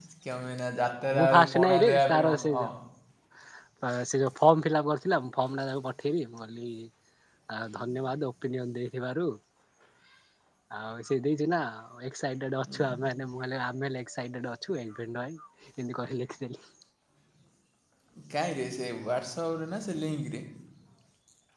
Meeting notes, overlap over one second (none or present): present